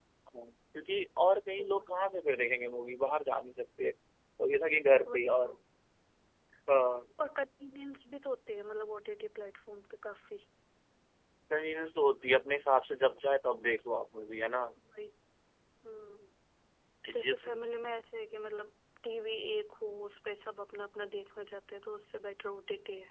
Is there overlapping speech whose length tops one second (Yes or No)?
No